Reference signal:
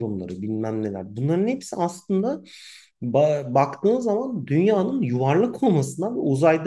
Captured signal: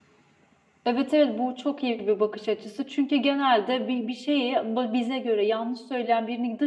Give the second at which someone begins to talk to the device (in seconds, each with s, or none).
0.8 s